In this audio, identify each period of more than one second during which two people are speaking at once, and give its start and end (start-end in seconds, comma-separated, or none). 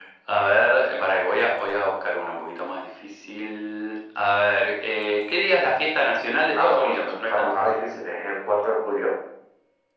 6.5-7.8